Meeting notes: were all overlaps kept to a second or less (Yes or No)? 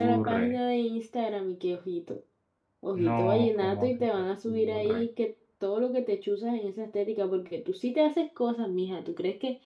No